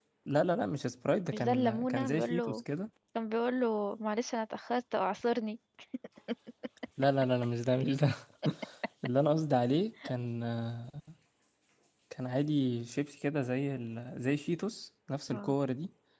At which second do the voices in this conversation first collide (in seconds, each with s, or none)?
1.3 s